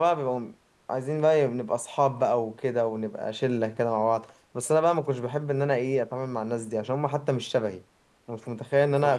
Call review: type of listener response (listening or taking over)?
listening